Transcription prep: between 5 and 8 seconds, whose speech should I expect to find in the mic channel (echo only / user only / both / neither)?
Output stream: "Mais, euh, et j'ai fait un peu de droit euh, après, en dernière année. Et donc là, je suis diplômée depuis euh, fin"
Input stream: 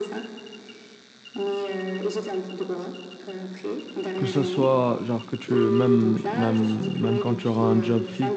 both